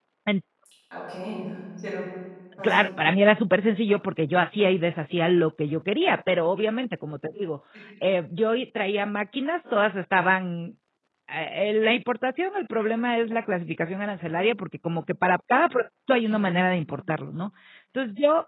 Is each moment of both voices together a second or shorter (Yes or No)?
Yes